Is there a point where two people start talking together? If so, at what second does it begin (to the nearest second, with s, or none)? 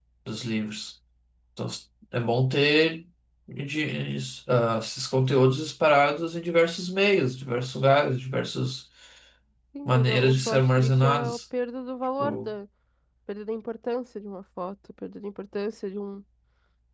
10 s